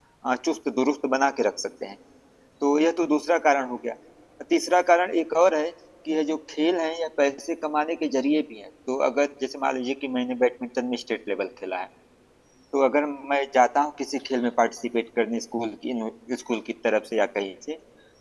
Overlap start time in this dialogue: none

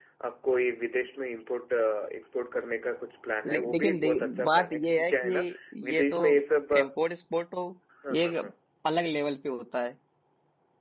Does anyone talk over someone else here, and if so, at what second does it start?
3.5 s

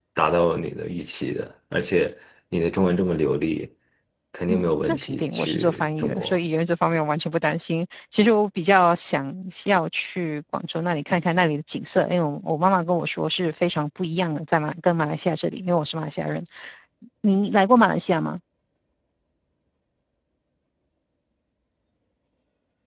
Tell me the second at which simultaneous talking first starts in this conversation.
4.5 s

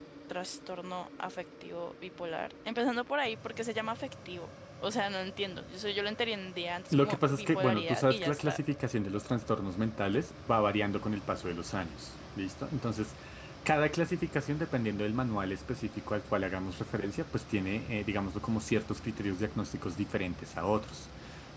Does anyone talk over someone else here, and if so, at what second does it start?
6.9 s

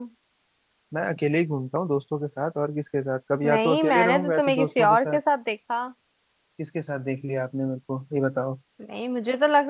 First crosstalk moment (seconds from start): 3.4 s

